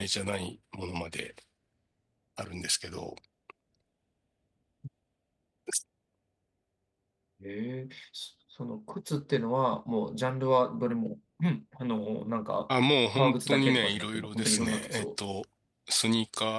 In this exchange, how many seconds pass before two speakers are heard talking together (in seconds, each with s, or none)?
13.2 s